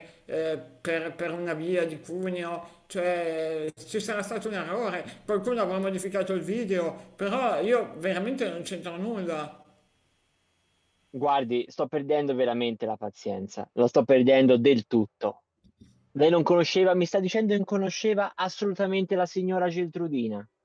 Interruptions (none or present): none